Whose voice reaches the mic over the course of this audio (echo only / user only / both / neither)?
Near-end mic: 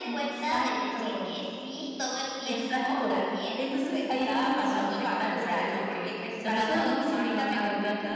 echo only